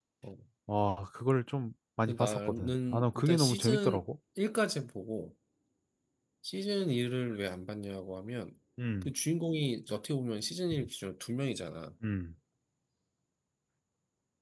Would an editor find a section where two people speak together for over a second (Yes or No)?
Yes